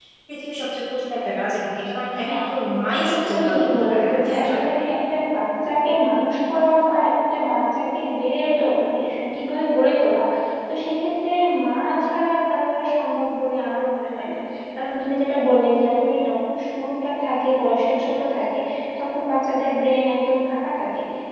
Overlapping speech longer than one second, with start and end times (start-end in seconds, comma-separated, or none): 3.0-4.7